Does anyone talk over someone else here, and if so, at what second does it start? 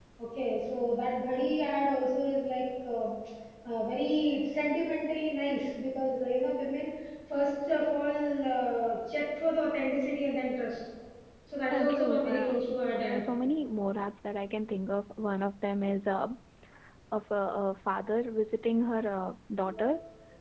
11.7 s

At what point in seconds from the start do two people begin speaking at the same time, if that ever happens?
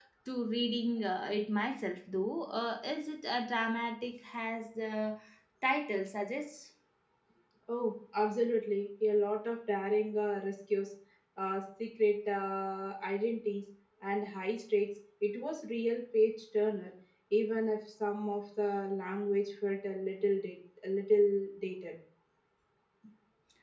none

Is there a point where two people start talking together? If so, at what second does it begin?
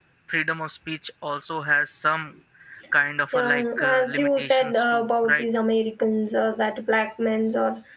3.3 s

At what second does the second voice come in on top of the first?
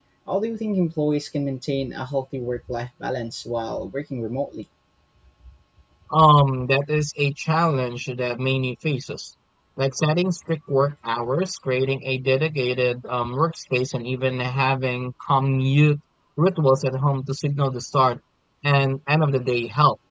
none

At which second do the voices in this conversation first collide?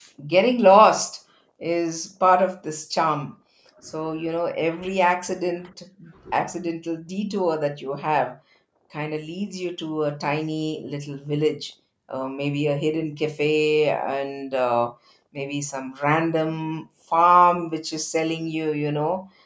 none

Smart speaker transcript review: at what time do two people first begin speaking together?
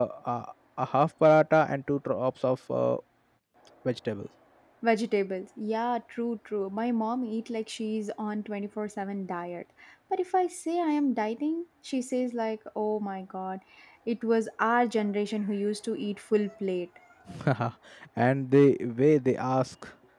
none

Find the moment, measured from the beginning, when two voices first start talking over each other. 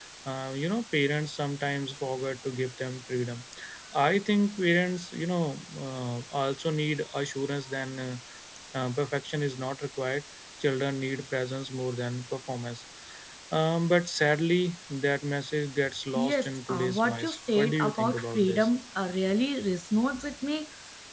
16.1 s

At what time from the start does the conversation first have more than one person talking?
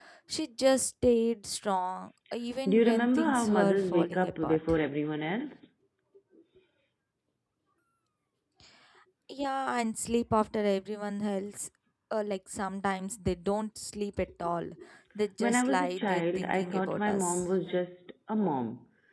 2.7 s

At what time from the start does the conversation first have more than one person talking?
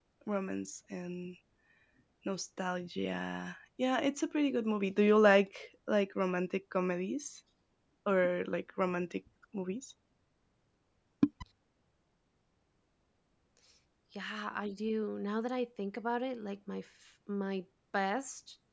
none

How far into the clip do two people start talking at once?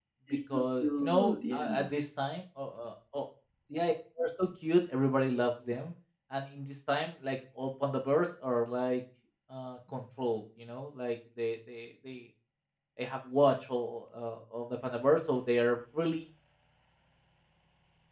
0.5 s

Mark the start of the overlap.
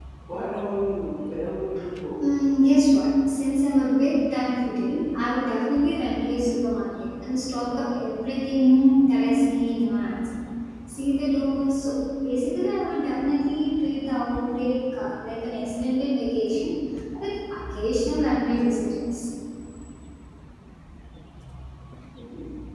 none

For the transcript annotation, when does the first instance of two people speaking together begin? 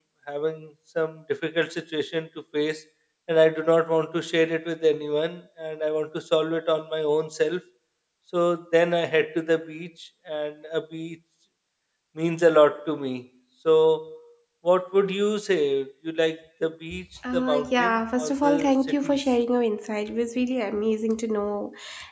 17.3 s

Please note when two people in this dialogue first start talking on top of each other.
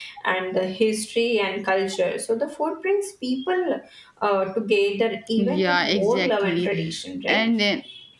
5.4 s

